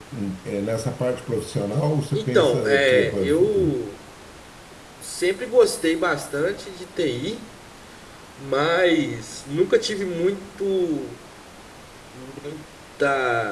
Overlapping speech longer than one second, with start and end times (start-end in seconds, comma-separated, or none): 2.1-3.8